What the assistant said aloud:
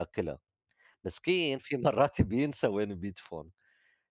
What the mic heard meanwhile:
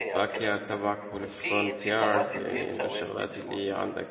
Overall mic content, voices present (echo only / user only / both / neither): both